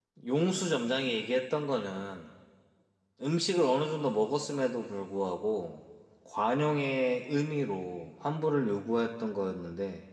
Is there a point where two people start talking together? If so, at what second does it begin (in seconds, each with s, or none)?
none